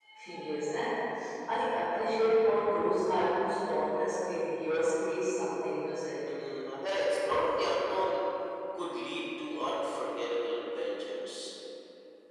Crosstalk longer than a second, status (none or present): none